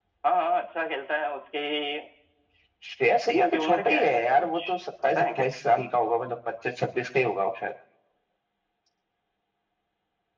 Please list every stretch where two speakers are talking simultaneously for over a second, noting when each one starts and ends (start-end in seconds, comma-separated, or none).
3.4-4.6